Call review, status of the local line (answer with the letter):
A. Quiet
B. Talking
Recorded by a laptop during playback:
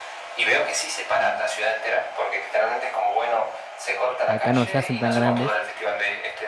B